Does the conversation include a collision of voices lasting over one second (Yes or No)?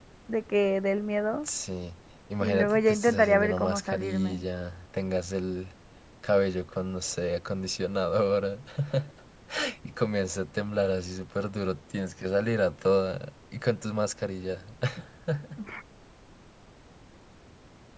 Yes